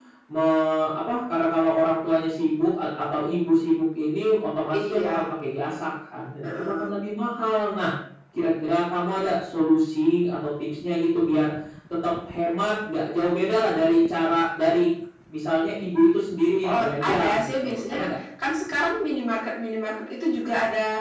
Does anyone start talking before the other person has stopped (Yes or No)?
Yes